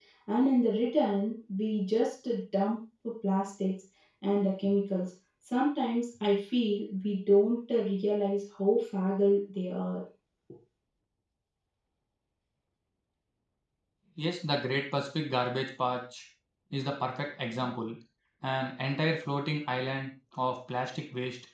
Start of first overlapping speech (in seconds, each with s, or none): none